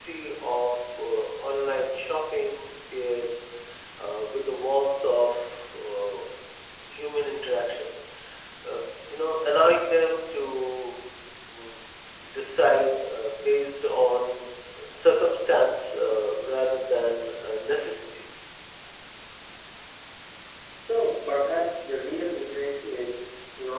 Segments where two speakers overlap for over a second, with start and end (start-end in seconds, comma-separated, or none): none